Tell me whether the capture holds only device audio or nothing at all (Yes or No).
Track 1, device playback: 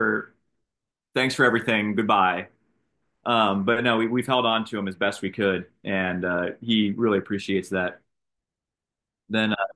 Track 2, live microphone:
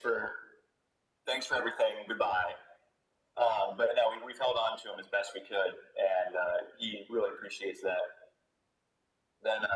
Yes